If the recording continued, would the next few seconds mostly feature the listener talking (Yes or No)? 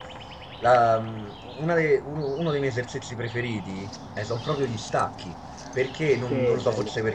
No